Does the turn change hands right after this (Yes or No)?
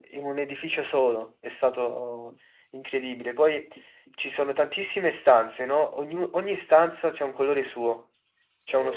No